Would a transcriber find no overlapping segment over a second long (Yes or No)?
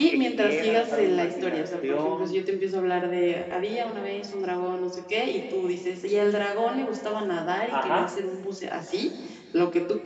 No